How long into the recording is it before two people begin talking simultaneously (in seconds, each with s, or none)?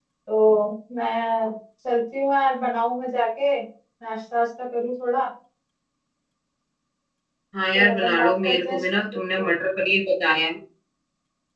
7.7 s